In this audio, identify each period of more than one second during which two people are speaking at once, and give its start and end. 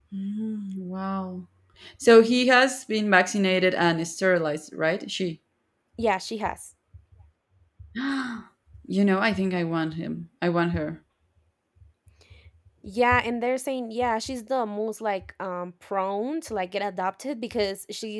none

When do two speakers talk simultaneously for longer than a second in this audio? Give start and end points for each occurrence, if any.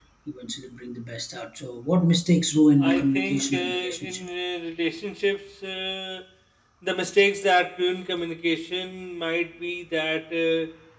2.8-4.3

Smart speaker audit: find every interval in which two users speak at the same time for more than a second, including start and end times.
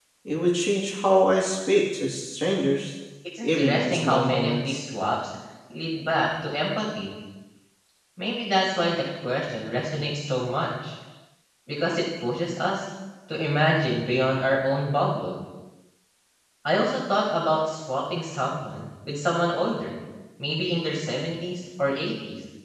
3.4-4.8

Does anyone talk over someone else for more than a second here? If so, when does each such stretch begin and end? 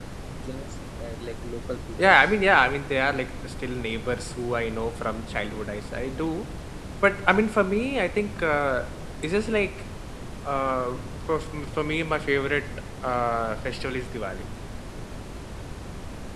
none

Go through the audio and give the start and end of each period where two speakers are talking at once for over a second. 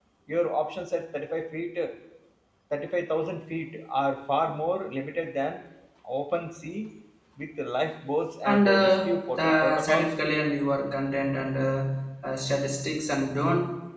8.4-10.1

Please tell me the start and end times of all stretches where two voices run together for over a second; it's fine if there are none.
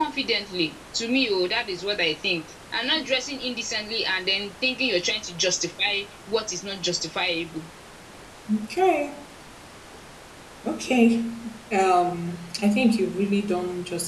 none

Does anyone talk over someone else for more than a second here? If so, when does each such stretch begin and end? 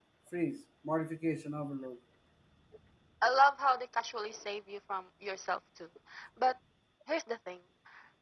none

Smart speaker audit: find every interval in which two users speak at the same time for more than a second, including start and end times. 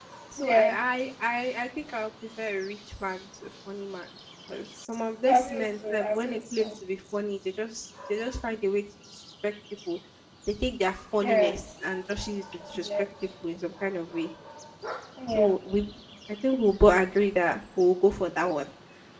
5.3-6.7

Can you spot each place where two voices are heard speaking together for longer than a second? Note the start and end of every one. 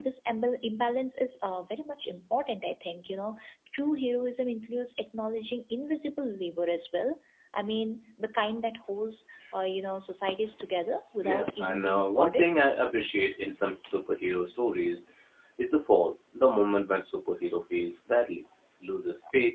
11.2-12.5

